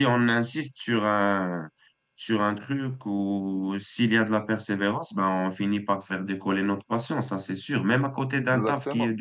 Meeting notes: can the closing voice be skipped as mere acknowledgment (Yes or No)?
Yes